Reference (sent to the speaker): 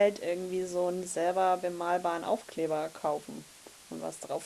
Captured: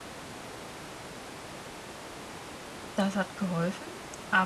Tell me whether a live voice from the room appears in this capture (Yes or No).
Yes